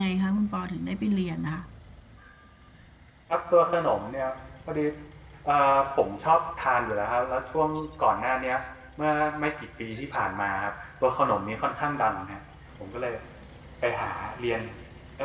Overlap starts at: none

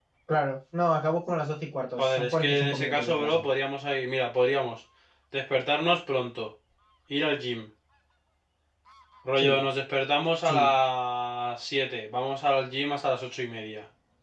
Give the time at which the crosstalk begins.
2.0 s

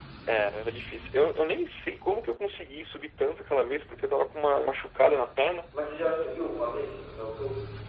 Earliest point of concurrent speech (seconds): none

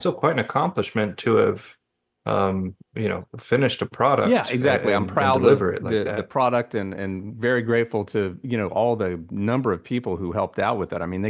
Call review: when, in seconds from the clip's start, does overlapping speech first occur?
4.2 s

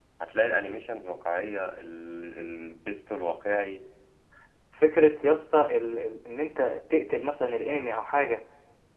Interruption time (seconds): none

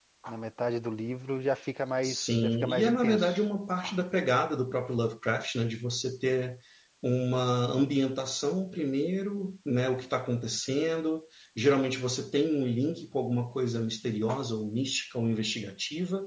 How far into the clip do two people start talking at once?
2.0 s

